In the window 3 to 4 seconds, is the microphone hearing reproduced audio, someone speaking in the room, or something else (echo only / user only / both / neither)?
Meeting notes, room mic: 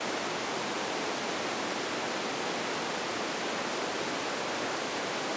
neither